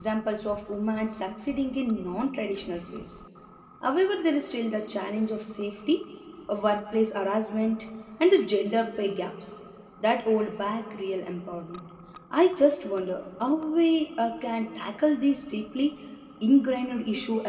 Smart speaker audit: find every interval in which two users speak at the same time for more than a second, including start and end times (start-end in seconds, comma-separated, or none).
none